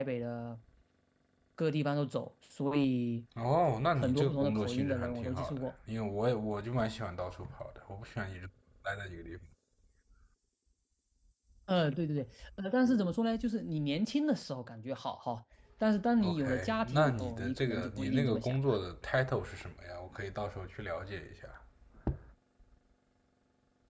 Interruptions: present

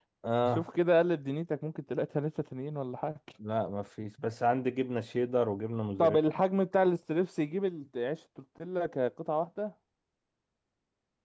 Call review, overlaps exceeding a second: none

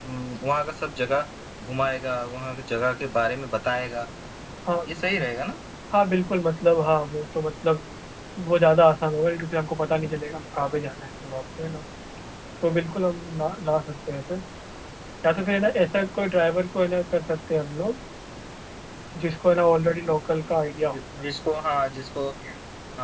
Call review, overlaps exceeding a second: none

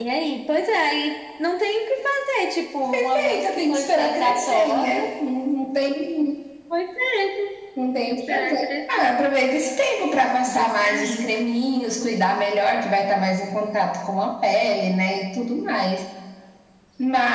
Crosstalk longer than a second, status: present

